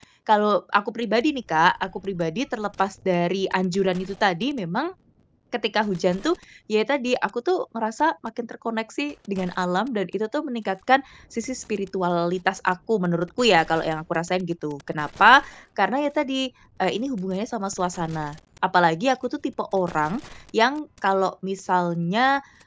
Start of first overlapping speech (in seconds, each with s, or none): none